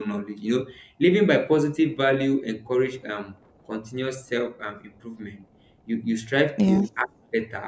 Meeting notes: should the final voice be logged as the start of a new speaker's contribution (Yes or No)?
No